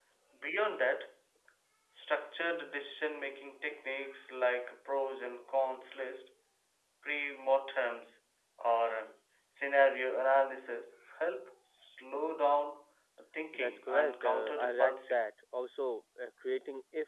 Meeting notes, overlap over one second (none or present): present